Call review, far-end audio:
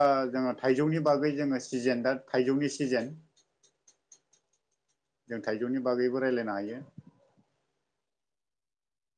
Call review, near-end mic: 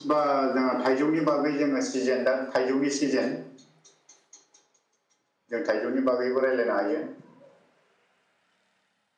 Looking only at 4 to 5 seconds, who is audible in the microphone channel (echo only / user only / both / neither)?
neither